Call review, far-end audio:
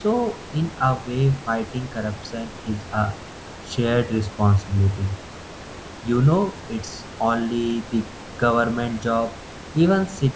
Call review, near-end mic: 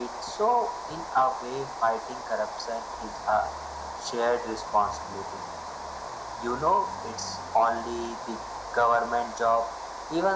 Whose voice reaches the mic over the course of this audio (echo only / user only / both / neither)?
echo only